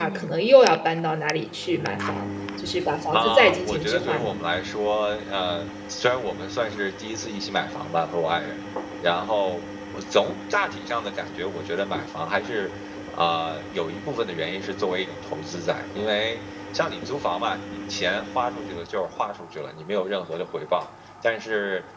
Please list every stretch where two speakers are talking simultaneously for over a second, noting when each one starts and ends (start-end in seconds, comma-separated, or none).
3.1-4.3